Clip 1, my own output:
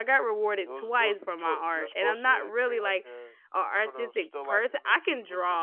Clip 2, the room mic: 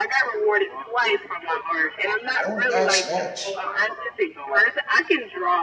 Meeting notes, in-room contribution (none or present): present